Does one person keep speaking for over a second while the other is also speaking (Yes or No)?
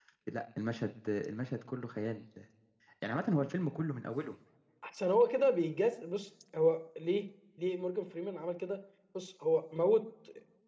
No